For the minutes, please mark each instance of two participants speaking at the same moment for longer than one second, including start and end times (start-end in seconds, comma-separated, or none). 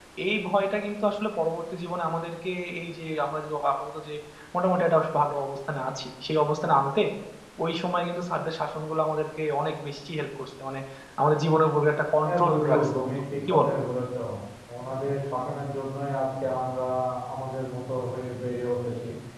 12.2-13.7